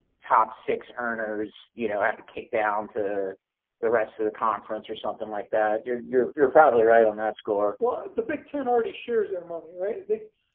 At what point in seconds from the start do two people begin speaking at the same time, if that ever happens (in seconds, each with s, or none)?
none